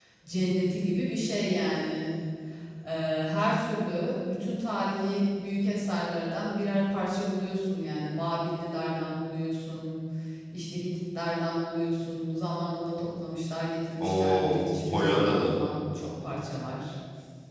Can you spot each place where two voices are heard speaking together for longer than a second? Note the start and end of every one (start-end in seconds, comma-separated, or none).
14.0-15.6